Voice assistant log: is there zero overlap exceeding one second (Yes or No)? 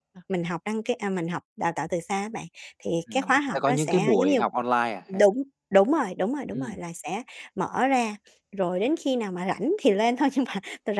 No